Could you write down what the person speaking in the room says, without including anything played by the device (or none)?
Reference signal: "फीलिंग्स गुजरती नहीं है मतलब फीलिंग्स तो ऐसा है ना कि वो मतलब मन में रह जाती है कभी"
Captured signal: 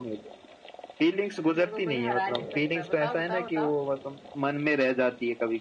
मेरे को कोई हरा नहीं सकता बताओ बताओ बताओ